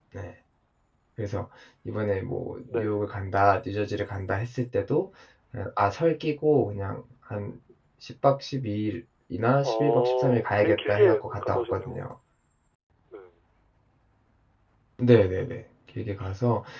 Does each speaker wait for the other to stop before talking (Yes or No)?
No